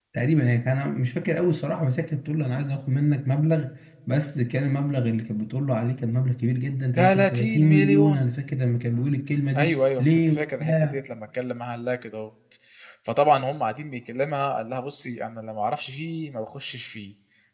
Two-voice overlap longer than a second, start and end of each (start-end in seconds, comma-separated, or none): 7.0-8.3, 9.6-11.0